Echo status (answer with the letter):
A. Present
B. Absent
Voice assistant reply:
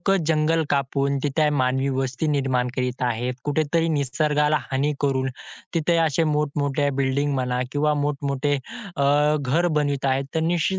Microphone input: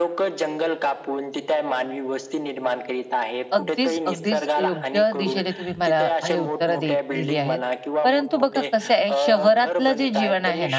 A